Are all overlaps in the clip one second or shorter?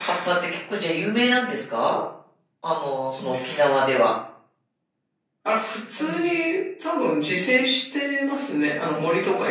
Yes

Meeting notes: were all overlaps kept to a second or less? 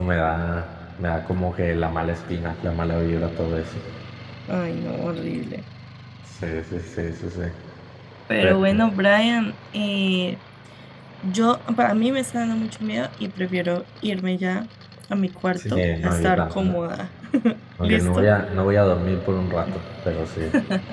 No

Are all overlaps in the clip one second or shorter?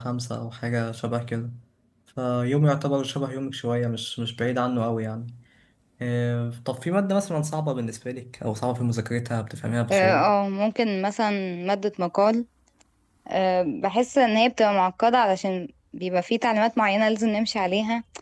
Yes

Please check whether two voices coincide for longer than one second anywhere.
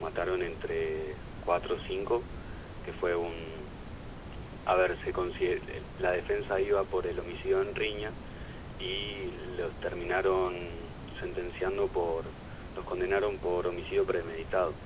No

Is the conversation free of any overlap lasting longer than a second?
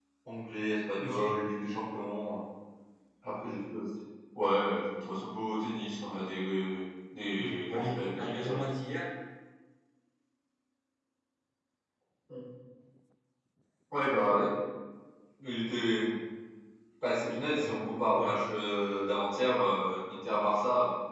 No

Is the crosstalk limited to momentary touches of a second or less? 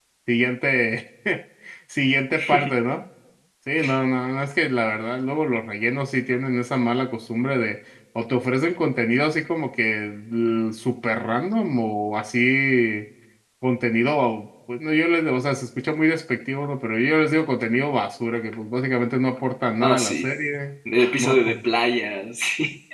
Yes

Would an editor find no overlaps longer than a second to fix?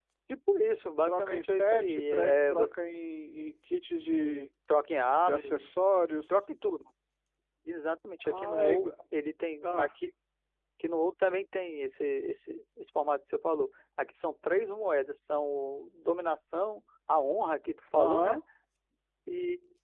No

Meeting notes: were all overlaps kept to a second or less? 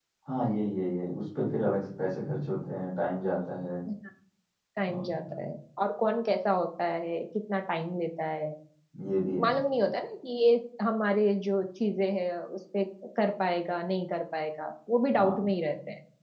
Yes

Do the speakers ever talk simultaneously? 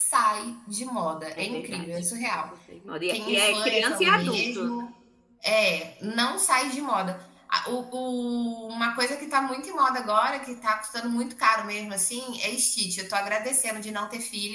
Yes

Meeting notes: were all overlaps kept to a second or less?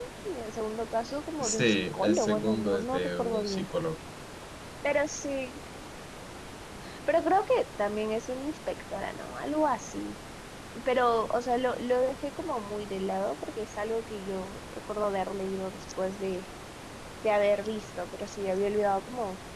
No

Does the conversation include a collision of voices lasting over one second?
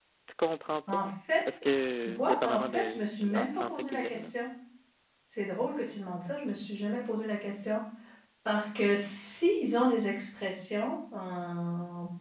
Yes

